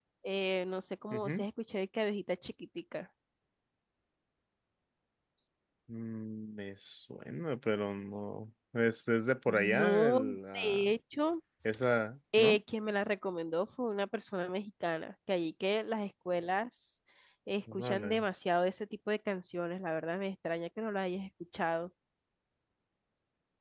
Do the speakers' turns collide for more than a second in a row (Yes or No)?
Yes